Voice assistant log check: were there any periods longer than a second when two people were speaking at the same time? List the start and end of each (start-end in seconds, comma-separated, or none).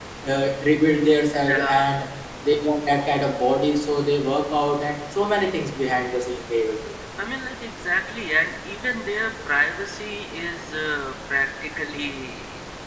none